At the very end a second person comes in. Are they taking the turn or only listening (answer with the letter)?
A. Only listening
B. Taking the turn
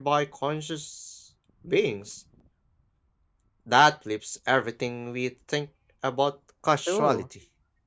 B